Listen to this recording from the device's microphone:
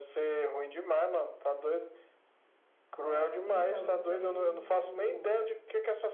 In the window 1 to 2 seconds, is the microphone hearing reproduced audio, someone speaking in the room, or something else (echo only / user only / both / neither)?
echo only